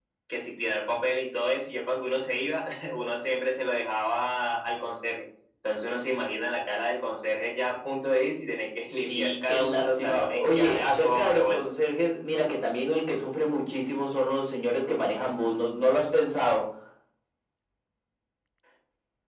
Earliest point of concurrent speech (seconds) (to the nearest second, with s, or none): 9 s